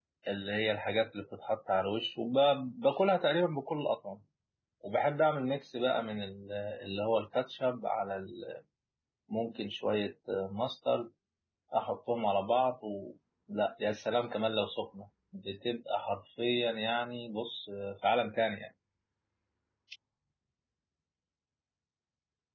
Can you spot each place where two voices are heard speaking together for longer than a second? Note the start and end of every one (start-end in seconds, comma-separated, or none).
none